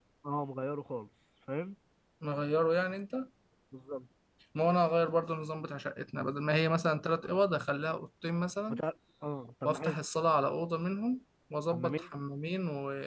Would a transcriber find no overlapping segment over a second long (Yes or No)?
Yes